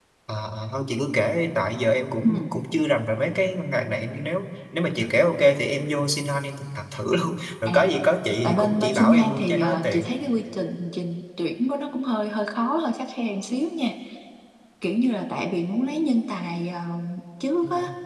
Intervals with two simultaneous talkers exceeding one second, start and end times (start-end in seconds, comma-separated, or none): 8.4-10.1